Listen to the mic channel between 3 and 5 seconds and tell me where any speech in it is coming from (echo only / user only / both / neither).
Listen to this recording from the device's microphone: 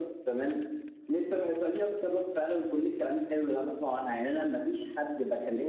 echo only